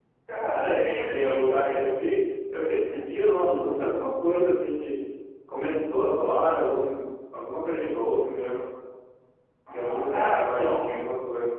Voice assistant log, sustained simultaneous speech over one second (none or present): present